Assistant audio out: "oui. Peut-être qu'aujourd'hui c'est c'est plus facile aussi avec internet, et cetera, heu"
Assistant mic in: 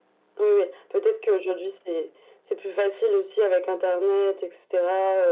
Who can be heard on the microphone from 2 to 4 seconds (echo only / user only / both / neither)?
echo only